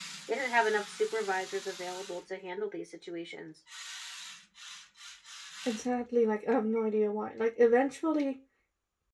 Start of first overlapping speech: none

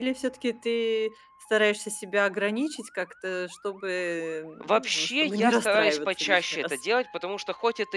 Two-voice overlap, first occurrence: 4.6 s

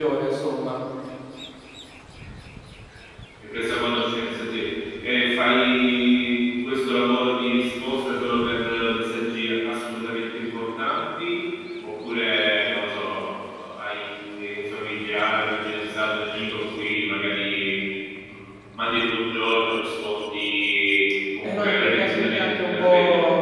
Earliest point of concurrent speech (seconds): 21.4 s

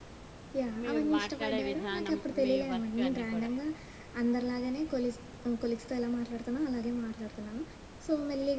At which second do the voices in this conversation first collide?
0.8 s

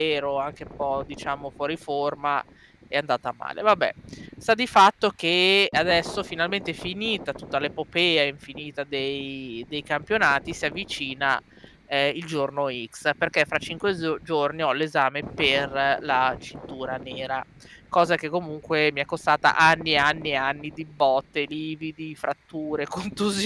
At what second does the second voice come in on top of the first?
none

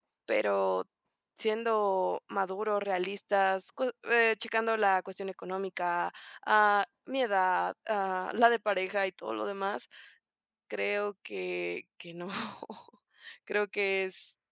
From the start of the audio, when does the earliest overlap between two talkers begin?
none

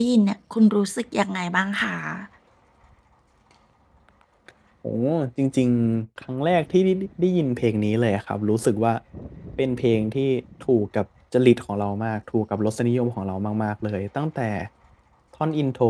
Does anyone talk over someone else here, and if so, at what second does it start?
none

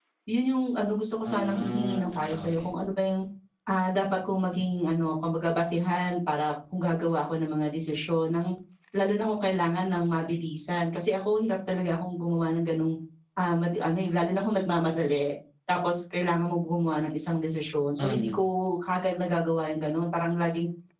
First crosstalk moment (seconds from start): 1.2 s

